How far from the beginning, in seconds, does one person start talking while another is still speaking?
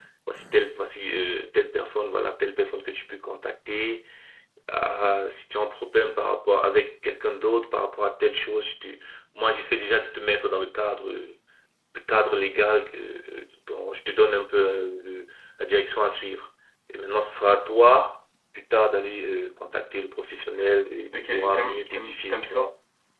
21.1 s

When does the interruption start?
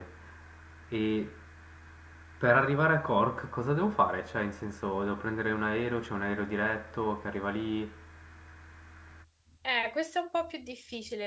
none

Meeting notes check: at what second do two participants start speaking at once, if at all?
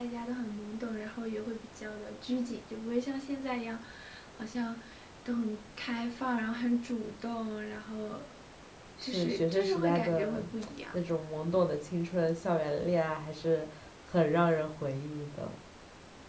9.0 s

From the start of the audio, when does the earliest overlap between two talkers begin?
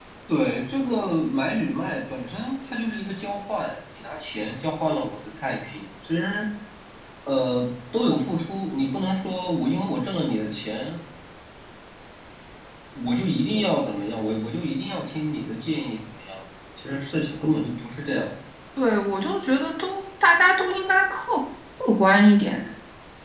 none

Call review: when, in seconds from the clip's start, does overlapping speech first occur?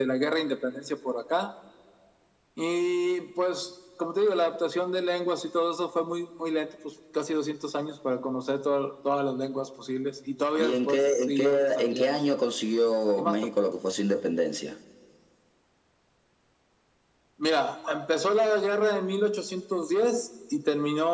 10.6 s

